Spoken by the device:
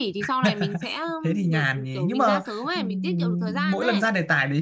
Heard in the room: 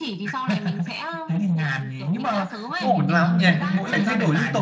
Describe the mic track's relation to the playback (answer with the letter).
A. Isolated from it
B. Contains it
B